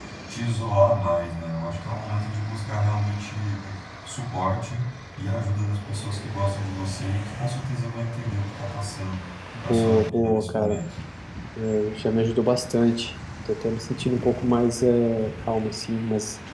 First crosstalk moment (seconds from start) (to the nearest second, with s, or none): 10 s